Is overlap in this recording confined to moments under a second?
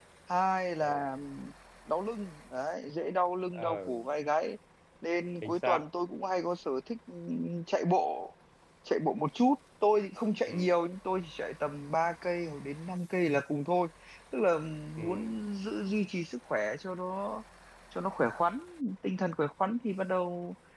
Yes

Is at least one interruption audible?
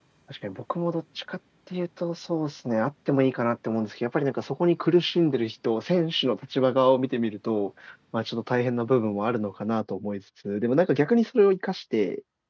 No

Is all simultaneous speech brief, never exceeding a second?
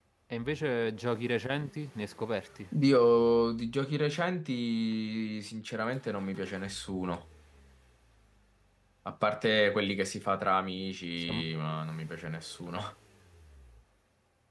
Yes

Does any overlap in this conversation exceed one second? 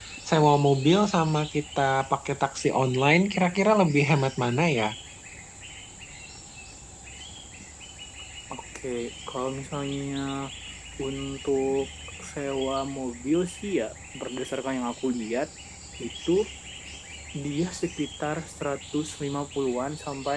No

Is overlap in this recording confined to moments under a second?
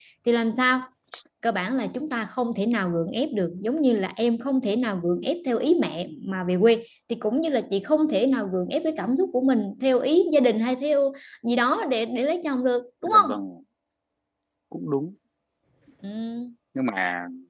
Yes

